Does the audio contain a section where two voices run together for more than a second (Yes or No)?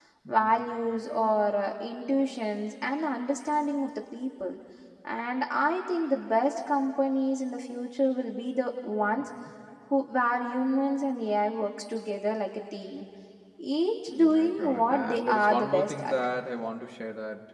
Yes